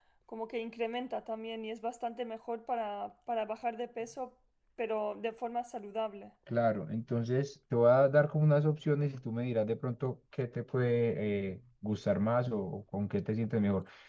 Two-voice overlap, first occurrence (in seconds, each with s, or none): none